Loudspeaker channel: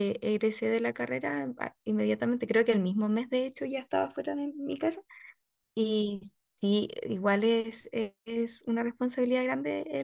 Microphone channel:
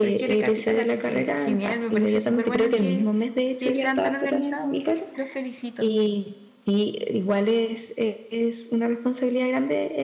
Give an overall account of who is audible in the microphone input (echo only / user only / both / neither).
both